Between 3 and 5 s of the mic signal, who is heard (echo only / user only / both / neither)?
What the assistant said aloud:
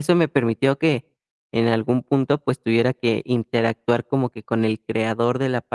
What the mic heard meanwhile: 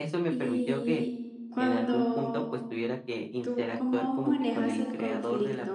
both